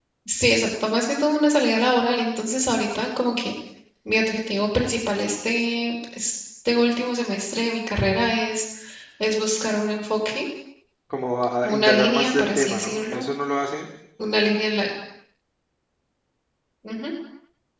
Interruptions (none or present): present